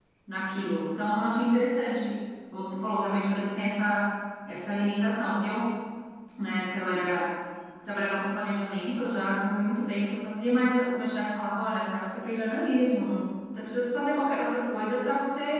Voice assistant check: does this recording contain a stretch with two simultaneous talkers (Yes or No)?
No